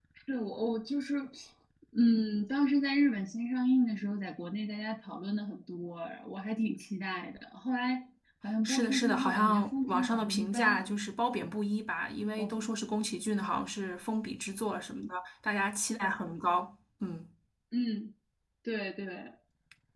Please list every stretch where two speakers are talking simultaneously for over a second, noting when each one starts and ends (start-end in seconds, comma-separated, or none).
8.6-10.9